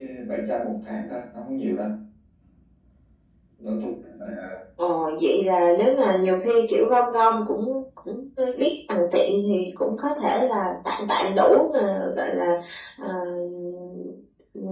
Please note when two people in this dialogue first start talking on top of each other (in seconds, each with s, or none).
none